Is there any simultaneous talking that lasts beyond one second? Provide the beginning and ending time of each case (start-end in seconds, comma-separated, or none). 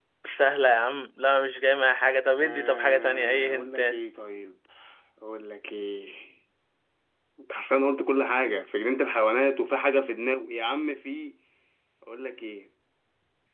2.4-4.0